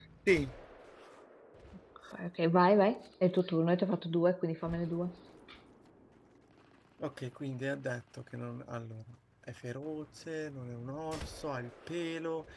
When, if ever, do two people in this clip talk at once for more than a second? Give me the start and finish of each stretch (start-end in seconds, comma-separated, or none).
none